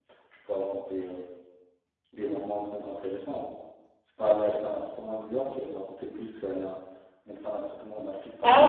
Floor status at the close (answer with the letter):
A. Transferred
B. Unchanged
A